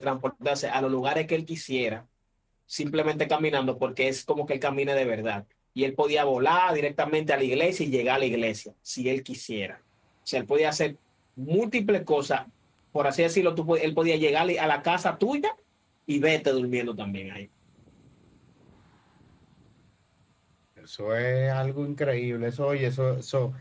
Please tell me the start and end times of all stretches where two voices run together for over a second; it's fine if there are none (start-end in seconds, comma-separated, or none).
none